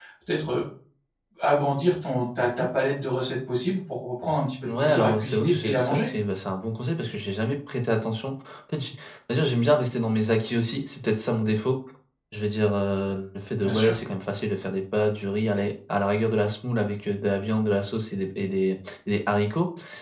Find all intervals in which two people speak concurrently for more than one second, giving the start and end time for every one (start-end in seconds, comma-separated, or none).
4.8-6.1